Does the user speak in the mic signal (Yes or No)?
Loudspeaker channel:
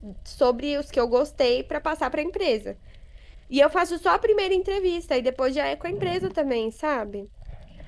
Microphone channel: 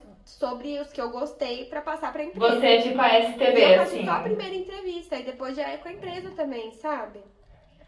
Yes